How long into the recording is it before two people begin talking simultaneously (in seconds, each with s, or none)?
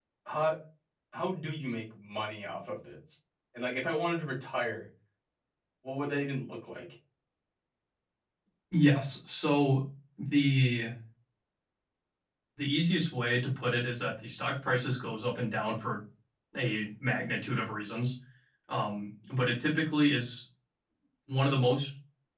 none